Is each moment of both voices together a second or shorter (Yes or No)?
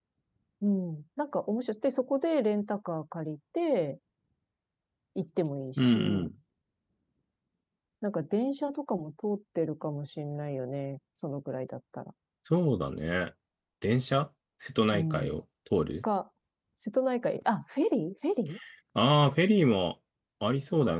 Yes